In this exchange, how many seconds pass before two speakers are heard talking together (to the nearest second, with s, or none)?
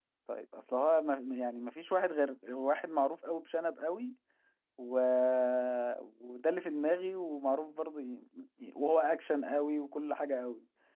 none